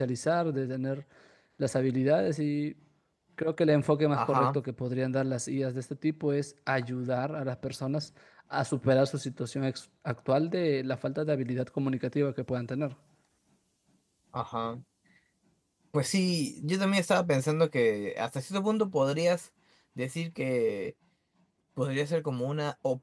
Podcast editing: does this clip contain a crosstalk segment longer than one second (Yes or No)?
No